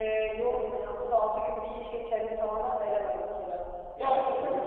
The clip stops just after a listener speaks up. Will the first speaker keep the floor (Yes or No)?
Yes